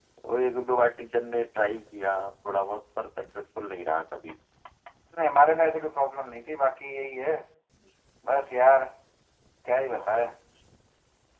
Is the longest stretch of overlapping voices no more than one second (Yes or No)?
Yes